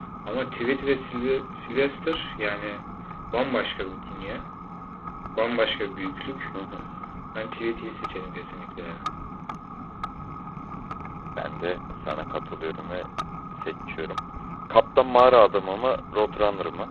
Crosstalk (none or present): none